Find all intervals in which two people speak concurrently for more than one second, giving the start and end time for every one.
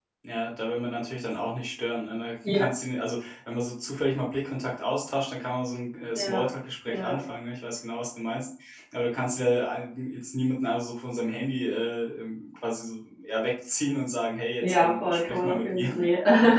14.6-15.9

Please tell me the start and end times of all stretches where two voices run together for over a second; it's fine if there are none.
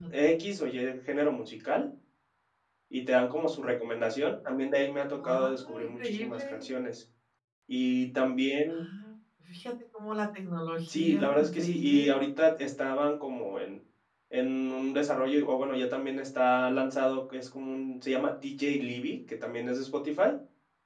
5.2-6.7, 10.9-12.2

